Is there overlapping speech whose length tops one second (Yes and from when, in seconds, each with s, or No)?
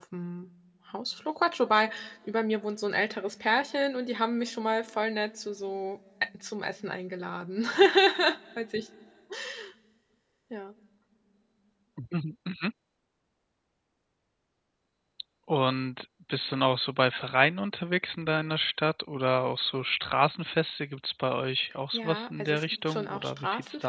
Yes, from 21.9 s